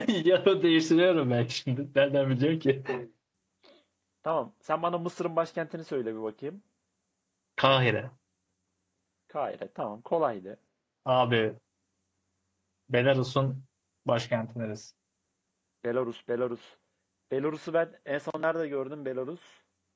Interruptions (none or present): none